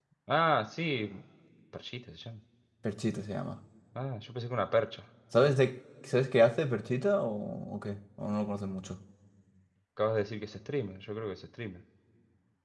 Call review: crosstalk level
none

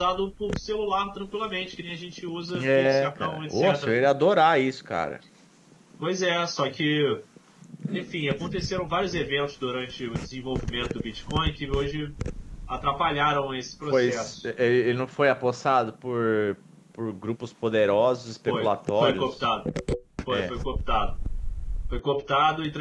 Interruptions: present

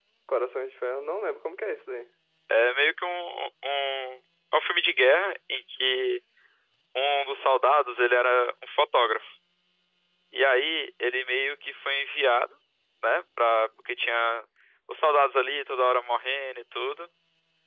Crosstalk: none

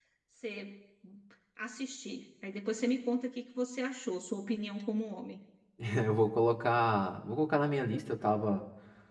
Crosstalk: none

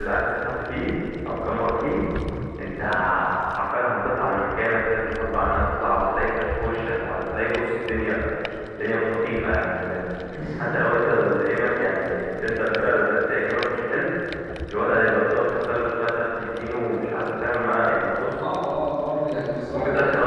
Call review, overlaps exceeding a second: none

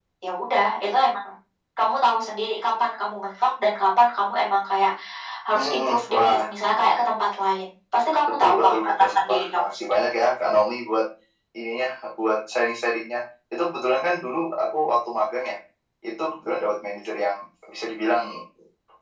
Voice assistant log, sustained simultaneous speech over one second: present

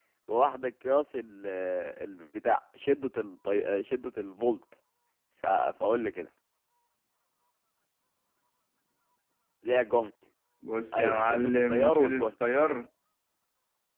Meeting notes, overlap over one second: present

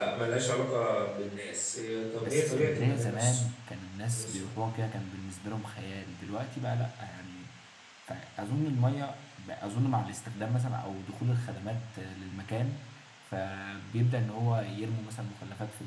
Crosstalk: present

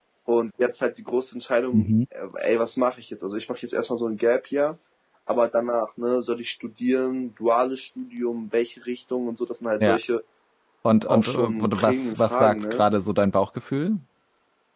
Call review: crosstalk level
present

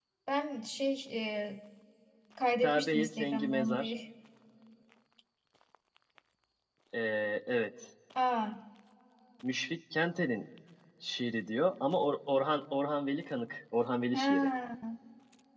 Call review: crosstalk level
present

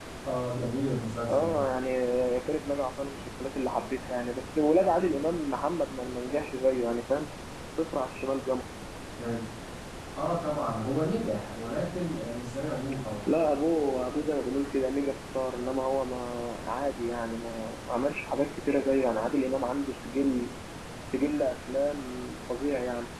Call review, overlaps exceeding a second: none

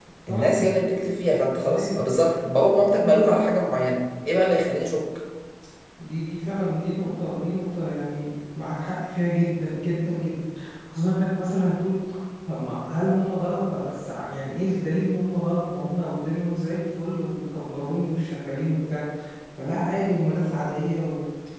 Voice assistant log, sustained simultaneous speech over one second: none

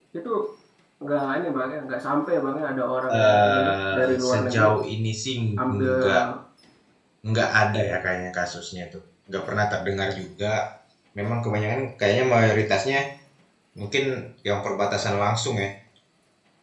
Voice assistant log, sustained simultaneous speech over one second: present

